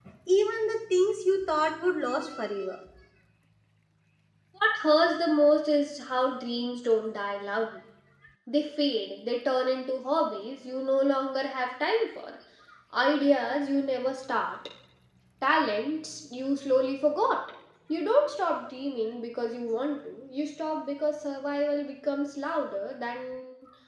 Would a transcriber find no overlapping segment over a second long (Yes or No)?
Yes